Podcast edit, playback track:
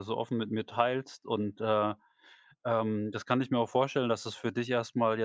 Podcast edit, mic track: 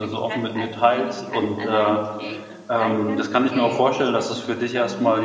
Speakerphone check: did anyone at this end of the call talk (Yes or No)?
Yes